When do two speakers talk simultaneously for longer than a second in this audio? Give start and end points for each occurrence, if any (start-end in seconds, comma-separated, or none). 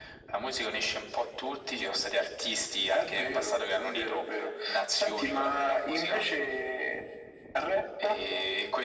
2.9-4.2, 4.9-6.2